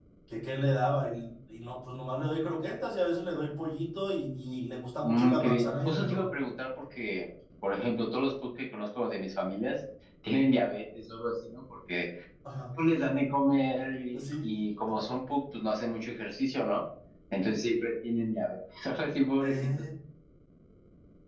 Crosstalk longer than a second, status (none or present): present